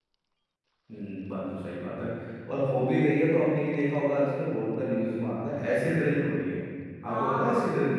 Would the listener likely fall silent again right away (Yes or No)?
No